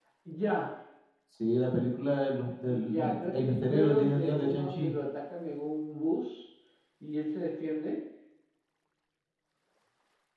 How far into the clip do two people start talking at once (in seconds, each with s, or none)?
2.7 s